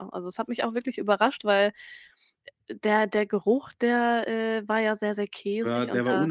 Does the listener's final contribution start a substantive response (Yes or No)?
Yes